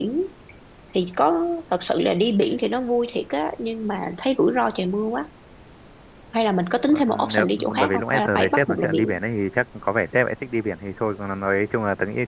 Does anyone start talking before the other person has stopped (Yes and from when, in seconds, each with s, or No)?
Yes, from 6.9 s